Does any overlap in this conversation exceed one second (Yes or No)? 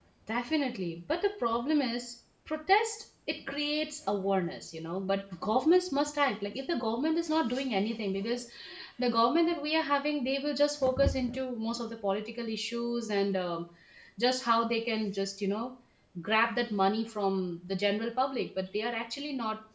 No